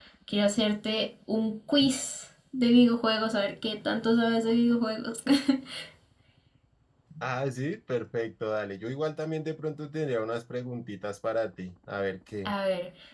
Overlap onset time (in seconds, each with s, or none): none